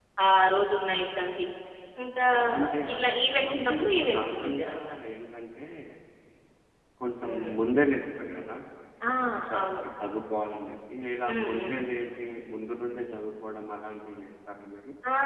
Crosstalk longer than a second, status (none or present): present